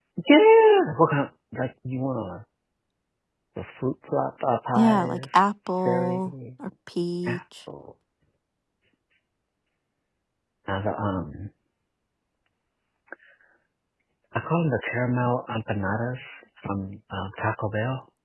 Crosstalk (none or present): present